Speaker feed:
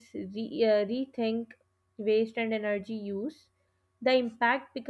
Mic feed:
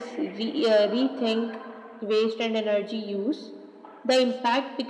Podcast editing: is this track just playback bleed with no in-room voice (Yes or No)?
Yes